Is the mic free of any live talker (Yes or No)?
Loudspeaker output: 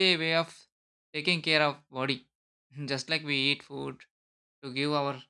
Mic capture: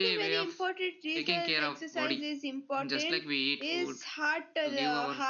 No